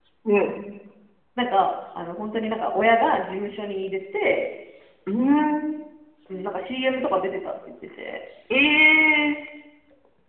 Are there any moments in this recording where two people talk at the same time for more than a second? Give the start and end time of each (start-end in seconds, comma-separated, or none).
none